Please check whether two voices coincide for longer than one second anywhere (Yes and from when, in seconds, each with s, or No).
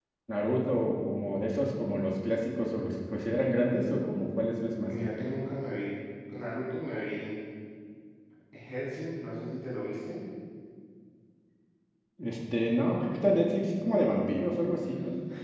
No